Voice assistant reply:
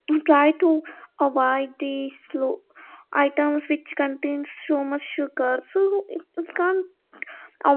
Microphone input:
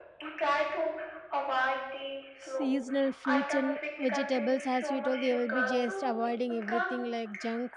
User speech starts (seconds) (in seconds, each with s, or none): 2.4 s